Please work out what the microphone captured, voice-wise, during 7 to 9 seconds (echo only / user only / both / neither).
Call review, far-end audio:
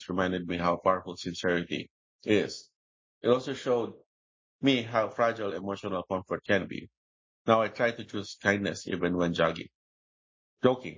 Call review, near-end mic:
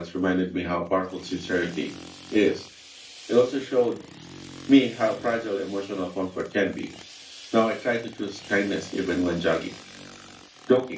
echo only